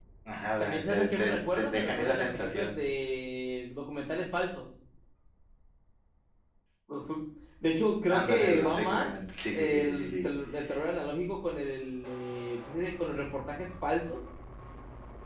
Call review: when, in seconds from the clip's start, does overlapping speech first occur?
1 s

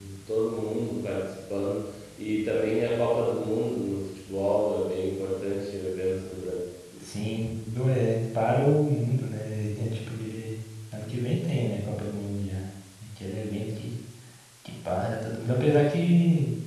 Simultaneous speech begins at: none

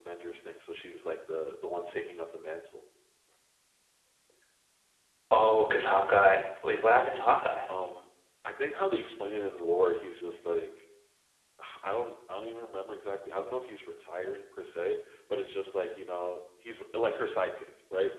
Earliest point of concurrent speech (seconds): none

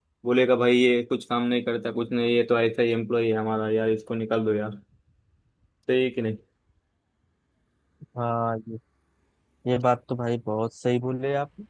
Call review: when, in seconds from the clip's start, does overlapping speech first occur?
none

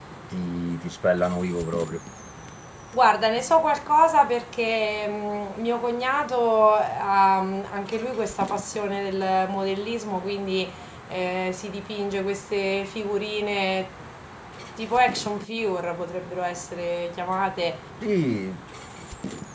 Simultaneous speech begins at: none

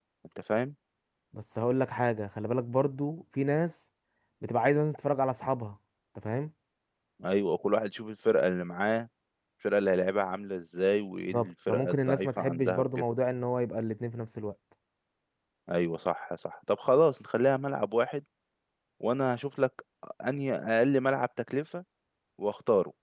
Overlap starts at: 11 s

